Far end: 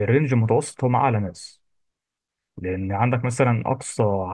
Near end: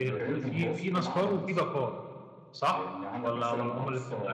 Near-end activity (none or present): present